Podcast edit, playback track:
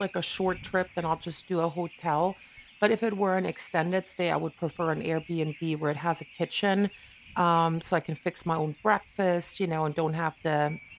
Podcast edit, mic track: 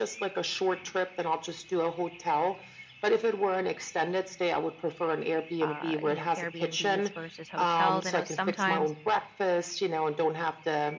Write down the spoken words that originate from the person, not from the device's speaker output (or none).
uh, you know, Airbnbs versus hotels. I know sometimes,